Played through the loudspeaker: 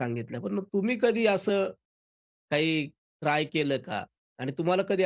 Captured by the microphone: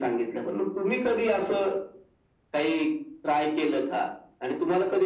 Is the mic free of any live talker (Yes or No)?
Yes